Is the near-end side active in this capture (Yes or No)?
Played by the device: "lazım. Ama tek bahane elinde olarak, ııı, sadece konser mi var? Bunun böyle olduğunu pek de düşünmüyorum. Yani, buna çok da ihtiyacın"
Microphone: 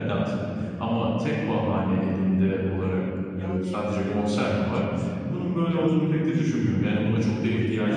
Yes